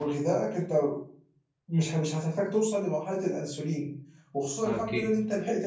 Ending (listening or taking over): listening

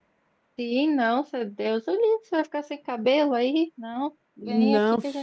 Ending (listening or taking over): taking over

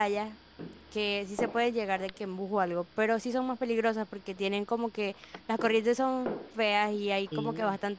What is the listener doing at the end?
listening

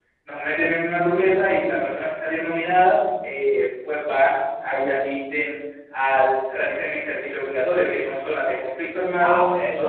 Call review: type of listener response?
taking over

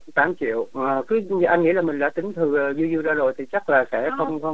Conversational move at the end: listening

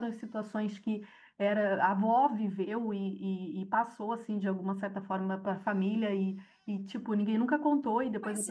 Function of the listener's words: listening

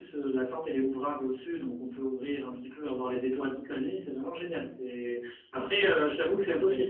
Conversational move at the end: listening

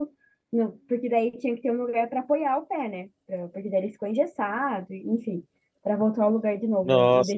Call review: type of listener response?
taking over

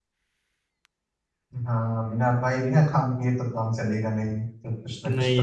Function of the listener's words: taking over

